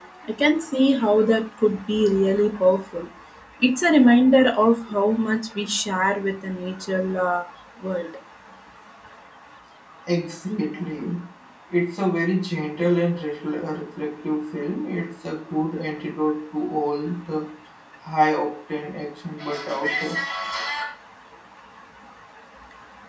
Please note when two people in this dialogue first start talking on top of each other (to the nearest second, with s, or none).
none